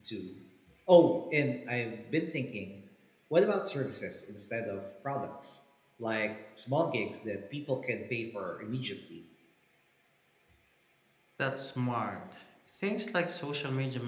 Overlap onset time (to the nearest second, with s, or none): none